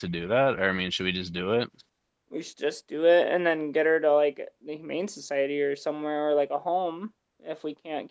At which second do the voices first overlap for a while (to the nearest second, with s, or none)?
none